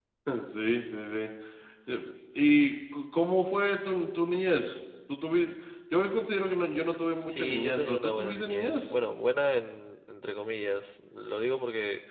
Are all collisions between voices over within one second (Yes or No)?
No